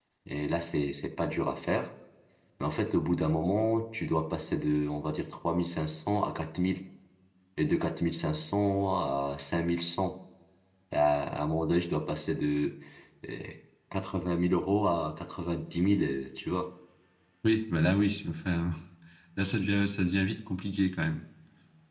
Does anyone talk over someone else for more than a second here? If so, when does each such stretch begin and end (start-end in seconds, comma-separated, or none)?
none